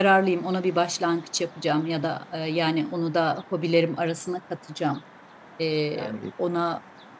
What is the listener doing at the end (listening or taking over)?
listening